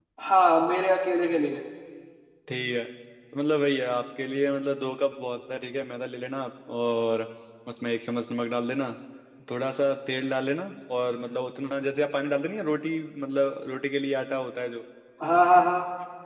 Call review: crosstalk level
none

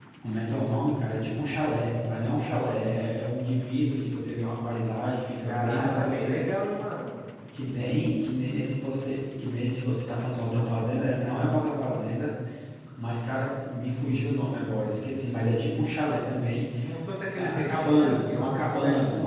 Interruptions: present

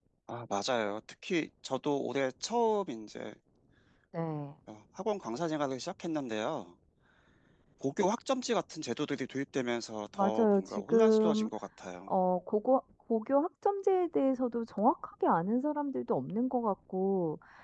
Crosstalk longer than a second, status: present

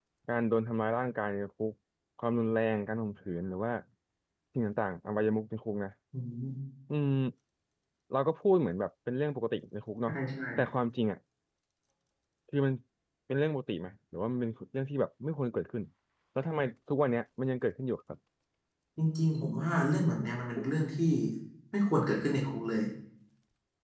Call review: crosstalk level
none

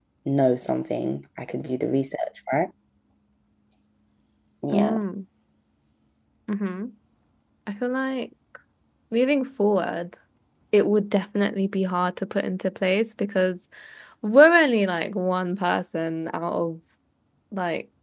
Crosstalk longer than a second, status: none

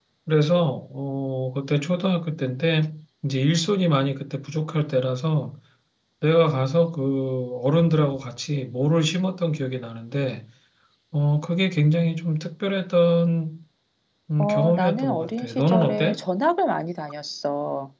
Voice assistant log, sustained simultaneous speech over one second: present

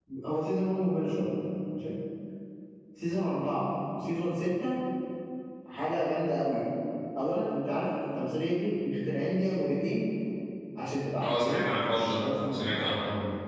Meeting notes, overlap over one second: present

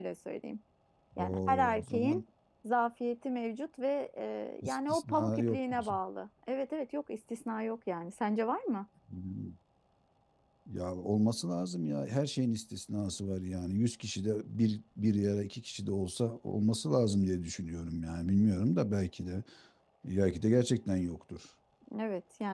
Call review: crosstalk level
present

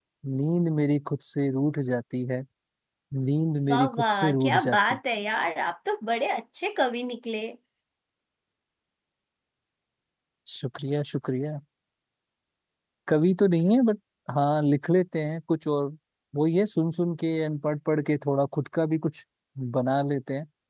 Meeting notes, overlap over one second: present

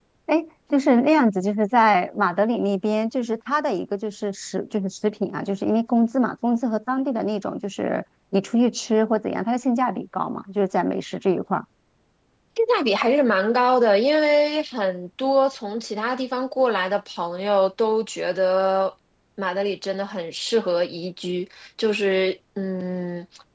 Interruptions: none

